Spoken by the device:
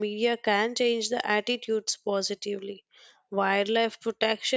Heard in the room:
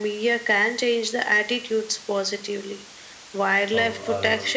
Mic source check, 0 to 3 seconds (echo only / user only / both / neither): echo only